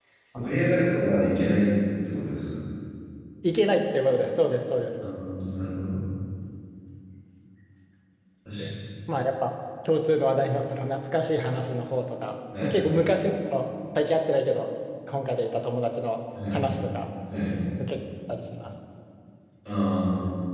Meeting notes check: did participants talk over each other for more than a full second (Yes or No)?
No